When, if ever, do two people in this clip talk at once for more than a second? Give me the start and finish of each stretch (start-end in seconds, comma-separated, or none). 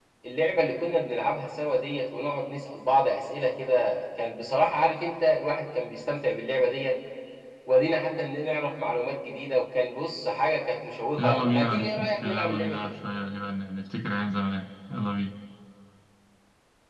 11.2-12.9